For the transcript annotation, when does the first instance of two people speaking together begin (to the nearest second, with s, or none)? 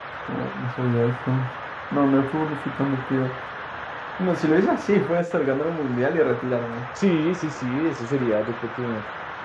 none